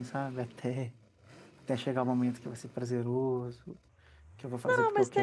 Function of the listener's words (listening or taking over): taking over